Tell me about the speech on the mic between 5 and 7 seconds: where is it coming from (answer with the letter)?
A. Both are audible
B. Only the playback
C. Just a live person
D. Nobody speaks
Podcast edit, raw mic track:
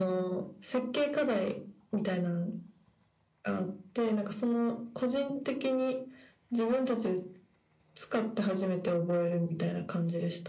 B